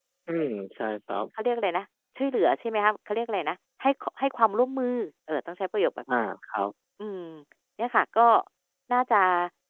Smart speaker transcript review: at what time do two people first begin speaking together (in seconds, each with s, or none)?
none